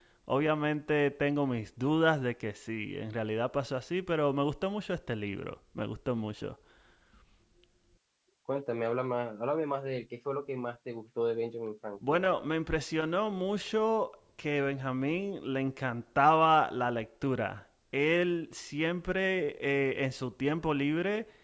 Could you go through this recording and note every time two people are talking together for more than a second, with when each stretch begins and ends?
none

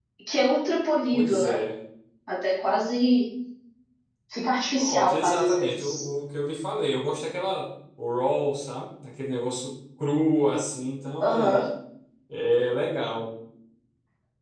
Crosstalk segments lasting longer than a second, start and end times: 4.8-6.0

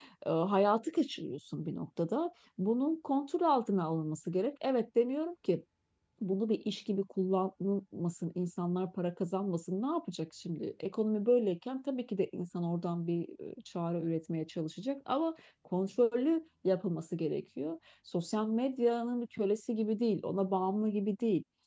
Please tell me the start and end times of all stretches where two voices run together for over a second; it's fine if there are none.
none

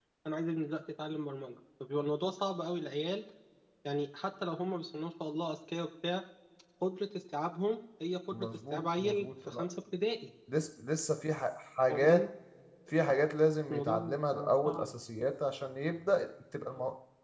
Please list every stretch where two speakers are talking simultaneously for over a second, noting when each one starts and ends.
8.3-9.6, 13.7-14.9

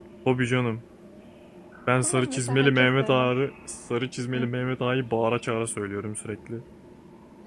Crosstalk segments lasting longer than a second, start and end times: 2.0-3.3

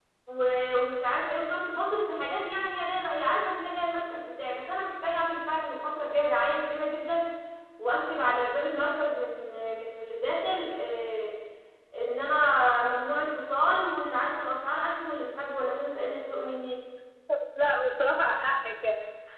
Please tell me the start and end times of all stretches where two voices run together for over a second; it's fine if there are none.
none

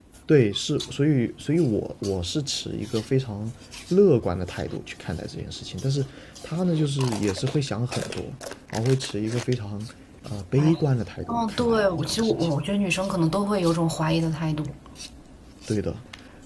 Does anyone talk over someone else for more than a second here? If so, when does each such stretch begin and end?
11.3-12.5

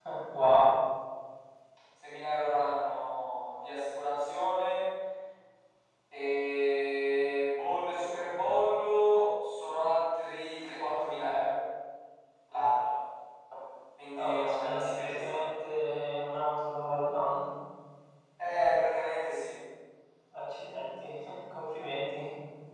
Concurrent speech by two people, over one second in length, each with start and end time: 14.2-15.4

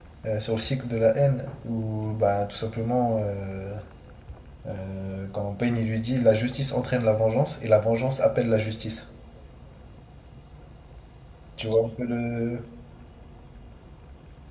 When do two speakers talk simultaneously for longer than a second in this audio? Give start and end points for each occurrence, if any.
none

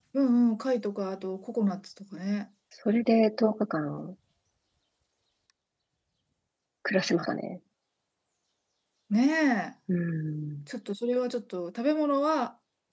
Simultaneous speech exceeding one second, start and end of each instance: none

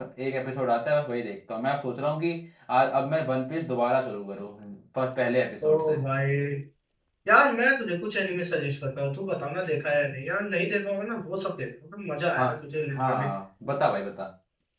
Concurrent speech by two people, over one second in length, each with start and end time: none

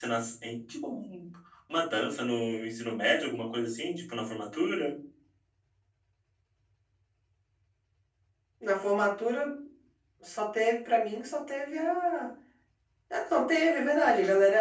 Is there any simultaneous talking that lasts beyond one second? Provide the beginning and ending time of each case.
none

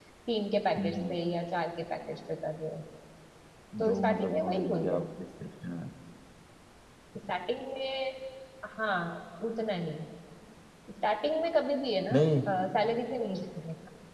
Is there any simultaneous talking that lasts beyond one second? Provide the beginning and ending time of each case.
3.9-5.1

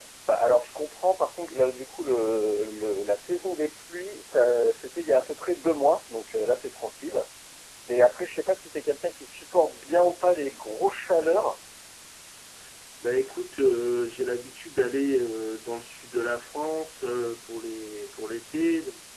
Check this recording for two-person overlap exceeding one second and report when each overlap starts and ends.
none

